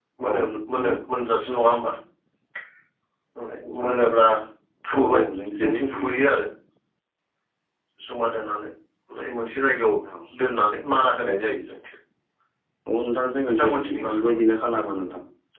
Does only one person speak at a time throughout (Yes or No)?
No